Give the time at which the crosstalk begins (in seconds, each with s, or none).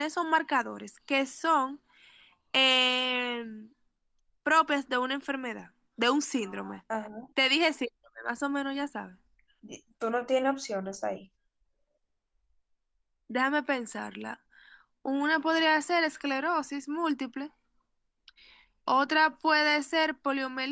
none